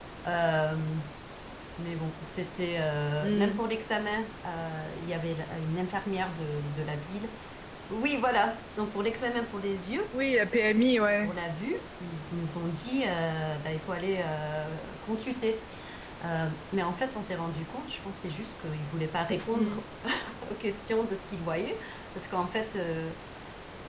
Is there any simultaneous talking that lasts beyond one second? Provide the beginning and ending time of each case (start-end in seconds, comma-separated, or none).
none